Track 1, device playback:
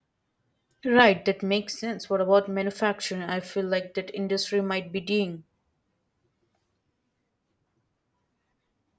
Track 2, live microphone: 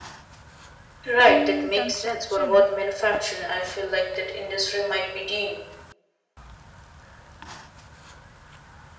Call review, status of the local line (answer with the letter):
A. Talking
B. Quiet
A